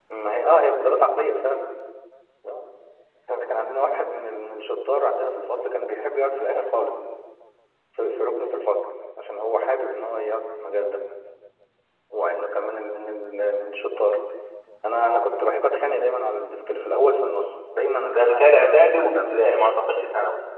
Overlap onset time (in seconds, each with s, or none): 18.0 s